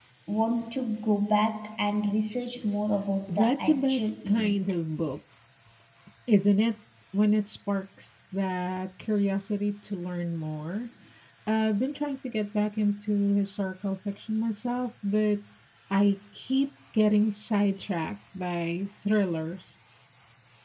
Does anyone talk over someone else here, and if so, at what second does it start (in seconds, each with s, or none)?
3.3 s